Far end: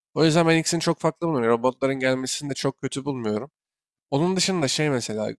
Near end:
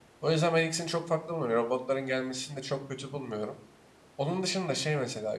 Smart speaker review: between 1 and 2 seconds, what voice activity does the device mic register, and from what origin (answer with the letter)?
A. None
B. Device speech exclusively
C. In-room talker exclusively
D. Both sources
B